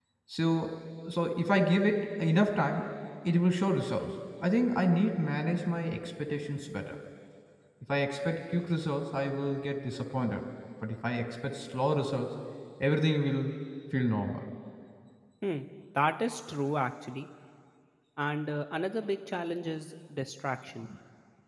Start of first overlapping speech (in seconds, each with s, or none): none